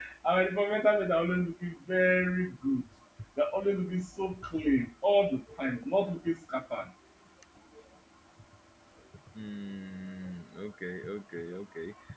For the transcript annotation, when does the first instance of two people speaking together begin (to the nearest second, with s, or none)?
none